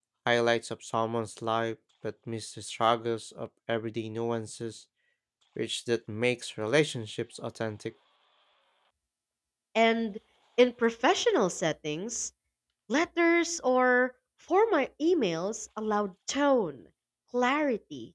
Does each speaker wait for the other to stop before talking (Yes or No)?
Yes